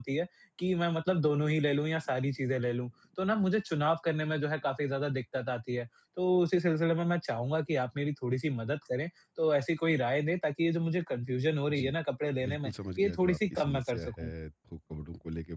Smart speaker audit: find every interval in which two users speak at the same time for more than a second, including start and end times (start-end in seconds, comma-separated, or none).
12.4-14.3